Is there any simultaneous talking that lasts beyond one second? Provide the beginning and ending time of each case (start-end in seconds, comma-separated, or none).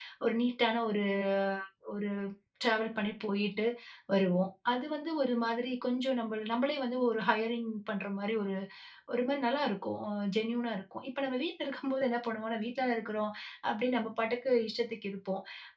none